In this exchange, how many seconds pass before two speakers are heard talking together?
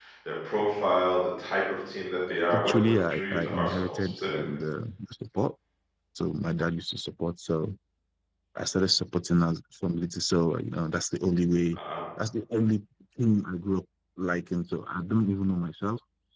3 s

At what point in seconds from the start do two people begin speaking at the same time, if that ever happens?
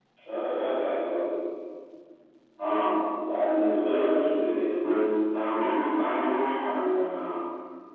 none

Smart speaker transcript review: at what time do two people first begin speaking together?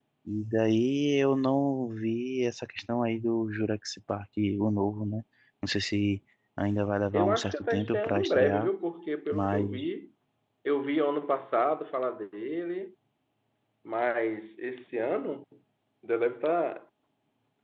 7 s

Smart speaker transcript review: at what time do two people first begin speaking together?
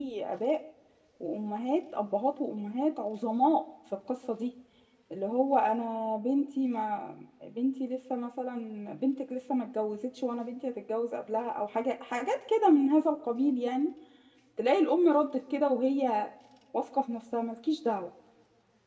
none

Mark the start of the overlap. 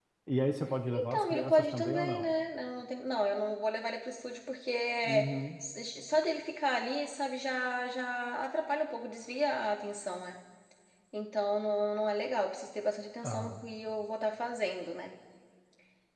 1 s

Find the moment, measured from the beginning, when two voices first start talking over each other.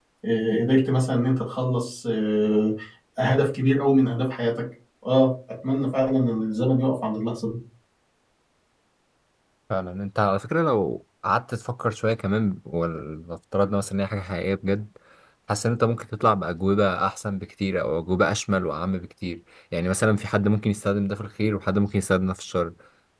none

